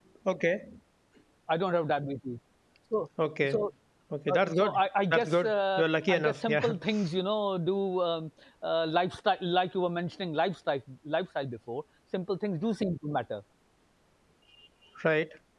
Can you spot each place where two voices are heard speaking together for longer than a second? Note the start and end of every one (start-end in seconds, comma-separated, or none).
5.1-6.7